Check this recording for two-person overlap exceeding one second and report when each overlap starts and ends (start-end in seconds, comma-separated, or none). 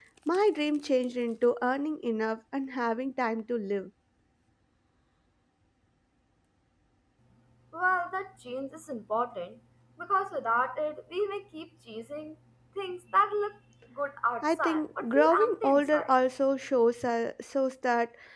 14.4-16.1